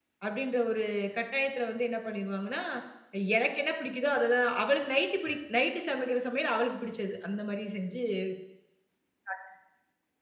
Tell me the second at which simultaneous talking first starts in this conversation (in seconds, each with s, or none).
none